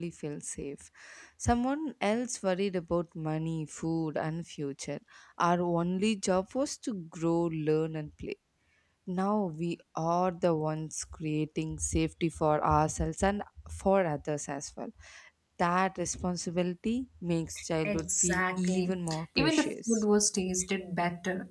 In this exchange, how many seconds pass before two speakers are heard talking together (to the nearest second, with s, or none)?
18 s